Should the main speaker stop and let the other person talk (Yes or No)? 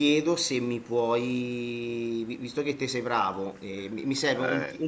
No